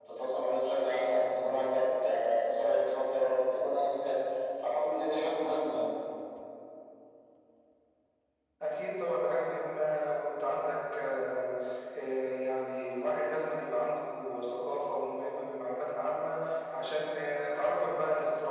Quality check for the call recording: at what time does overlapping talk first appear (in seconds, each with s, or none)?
none